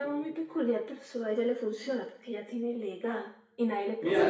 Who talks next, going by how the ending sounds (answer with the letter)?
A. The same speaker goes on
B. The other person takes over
B